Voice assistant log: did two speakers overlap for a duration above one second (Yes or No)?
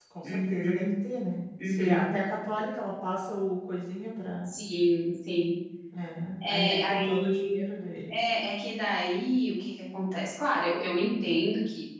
Yes